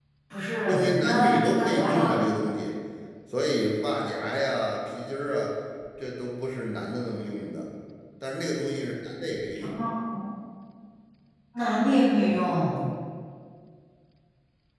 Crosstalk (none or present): present